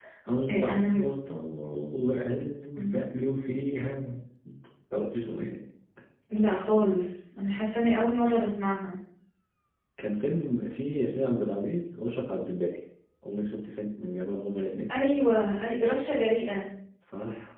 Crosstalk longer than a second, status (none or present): none